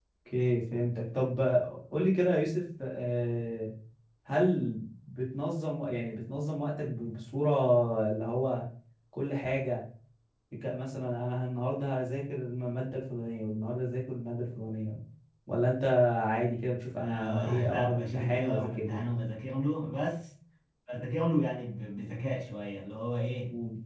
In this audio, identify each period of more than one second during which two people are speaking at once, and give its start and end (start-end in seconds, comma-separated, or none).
17.0-18.8